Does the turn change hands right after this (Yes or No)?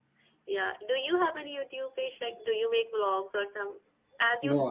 Yes